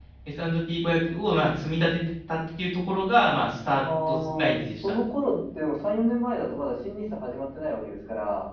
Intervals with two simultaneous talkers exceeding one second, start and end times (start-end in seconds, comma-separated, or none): 3.7-5.0